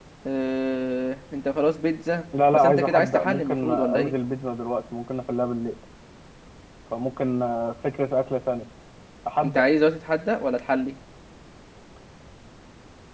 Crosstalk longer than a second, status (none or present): present